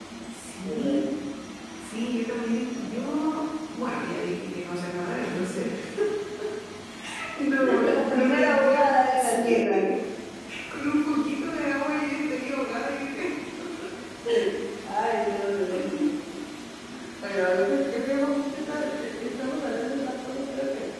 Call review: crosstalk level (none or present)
present